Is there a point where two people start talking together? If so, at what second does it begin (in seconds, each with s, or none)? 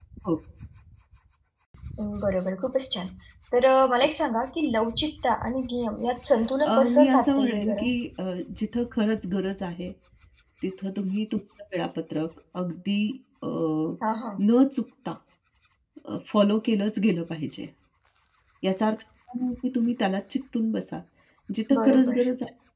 6.6 s